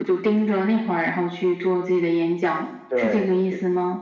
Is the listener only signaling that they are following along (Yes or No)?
No